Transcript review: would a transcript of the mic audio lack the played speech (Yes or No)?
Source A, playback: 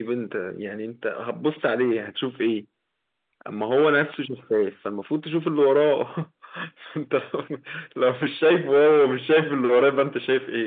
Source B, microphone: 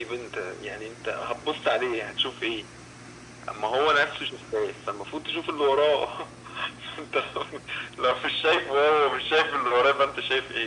No